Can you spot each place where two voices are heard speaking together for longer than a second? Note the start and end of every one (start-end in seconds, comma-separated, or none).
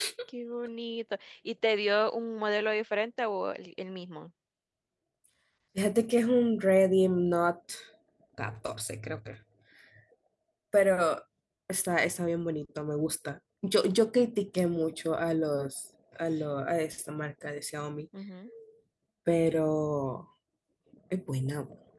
none